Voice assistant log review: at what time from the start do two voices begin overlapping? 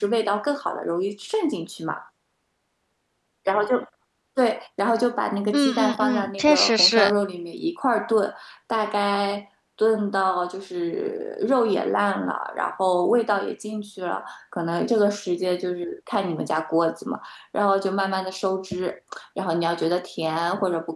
6 s

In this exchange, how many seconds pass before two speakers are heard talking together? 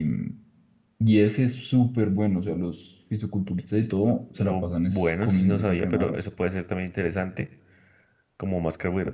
4 s

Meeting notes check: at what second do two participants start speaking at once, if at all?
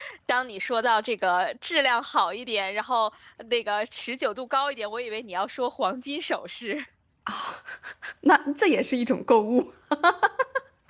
none

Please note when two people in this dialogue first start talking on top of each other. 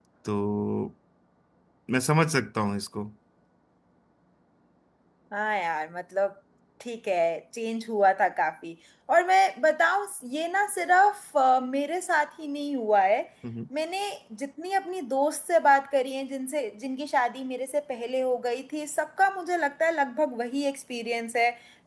none

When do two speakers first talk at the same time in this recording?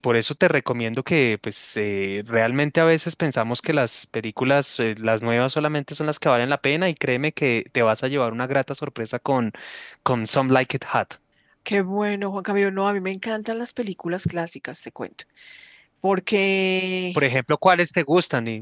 none

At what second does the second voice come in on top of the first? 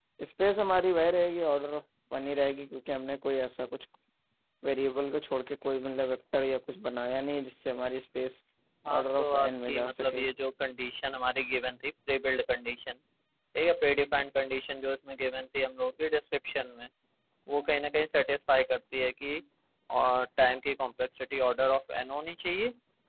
9 s

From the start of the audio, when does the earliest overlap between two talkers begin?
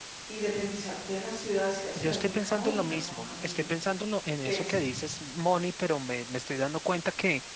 2 s

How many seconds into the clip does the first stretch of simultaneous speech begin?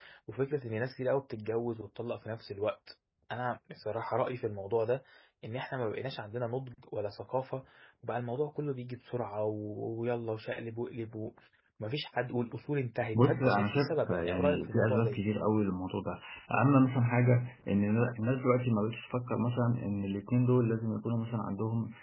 13 s

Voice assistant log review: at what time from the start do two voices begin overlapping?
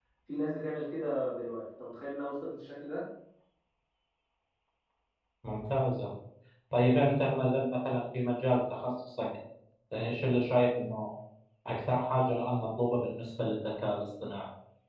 none

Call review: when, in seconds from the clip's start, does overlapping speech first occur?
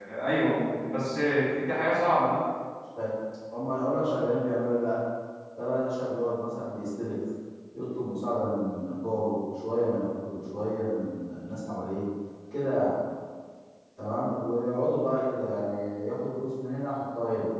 none

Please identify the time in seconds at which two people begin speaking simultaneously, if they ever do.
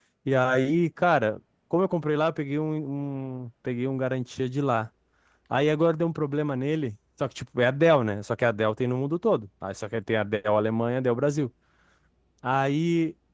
none

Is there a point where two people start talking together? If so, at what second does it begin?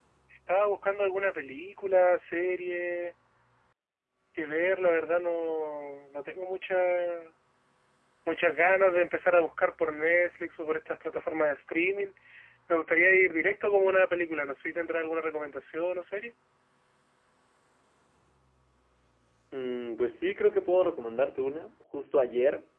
none

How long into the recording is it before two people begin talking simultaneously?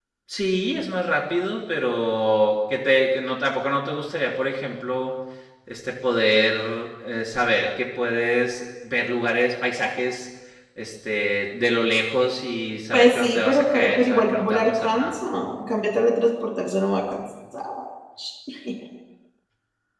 13 s

